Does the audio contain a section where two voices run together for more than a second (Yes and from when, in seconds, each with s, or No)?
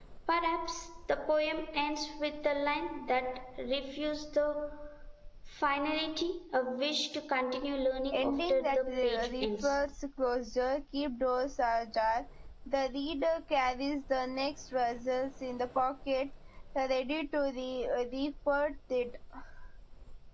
Yes, from 8.1 s